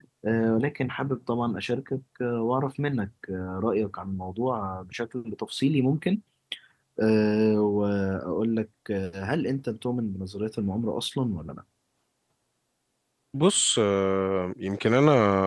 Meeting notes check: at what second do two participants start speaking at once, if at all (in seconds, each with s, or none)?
none